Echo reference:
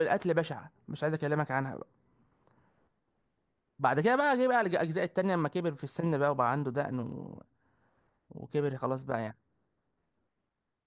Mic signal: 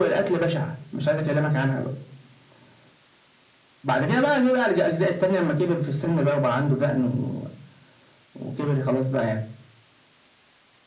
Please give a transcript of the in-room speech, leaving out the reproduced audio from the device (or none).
none